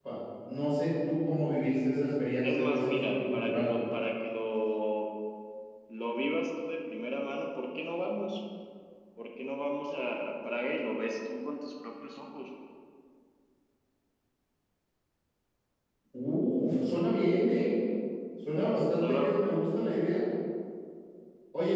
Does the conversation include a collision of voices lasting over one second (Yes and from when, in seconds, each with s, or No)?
Yes, from 2.4 s